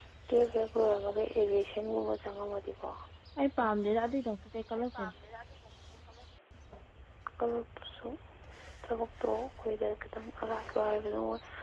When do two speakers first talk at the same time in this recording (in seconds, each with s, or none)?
none